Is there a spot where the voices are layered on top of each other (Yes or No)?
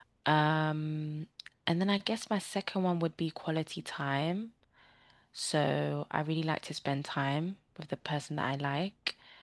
No